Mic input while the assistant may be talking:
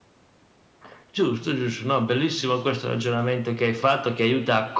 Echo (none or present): present